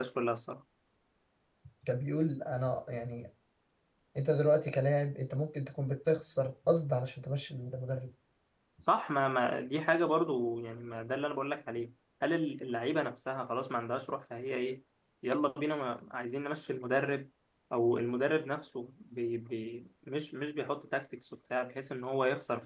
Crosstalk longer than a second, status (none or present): none